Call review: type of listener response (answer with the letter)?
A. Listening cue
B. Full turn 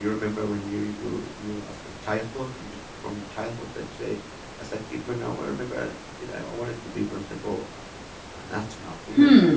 B